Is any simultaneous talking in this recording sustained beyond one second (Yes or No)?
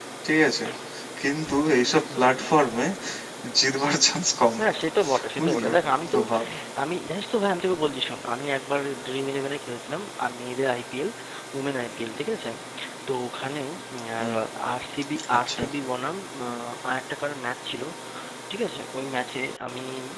No